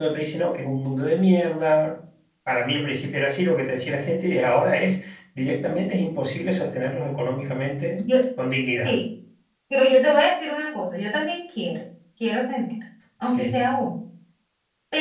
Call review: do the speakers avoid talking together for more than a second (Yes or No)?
Yes